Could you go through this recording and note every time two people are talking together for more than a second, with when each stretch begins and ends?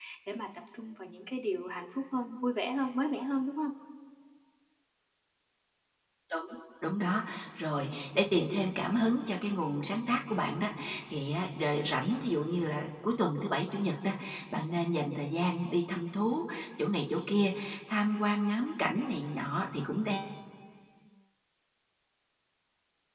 none

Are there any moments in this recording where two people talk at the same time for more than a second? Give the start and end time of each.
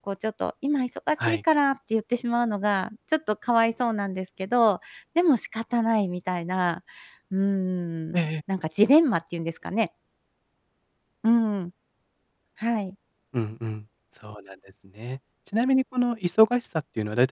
none

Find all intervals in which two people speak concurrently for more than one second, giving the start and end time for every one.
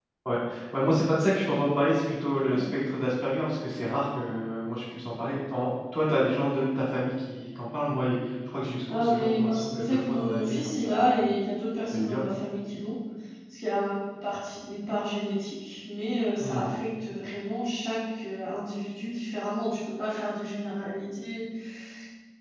8.9-11.1

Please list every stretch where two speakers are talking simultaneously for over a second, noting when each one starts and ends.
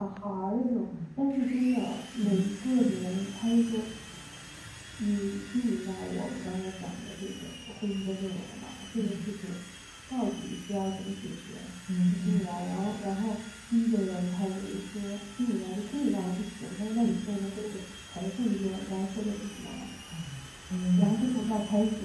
none

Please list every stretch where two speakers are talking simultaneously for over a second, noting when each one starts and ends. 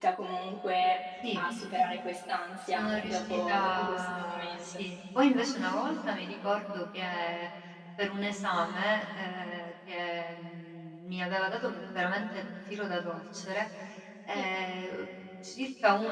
2.7-4.7

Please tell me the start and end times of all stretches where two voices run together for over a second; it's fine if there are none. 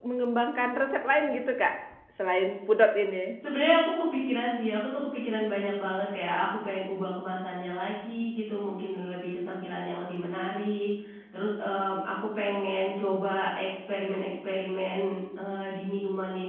none

